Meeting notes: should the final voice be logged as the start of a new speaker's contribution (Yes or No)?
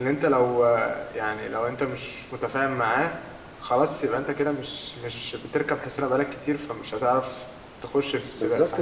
Yes